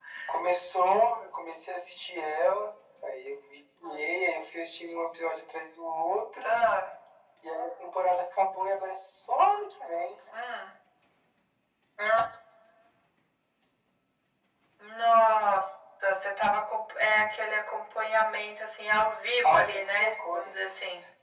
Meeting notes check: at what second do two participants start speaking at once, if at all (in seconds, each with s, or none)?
19.4 s